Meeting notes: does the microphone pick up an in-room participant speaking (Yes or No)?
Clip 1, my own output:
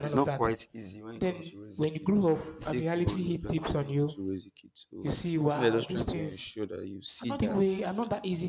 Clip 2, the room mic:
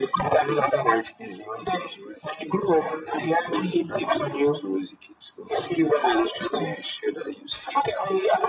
No